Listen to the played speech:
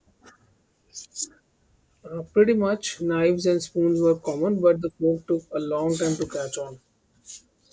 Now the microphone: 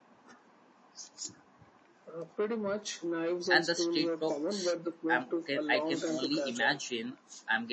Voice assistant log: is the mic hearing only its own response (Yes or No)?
No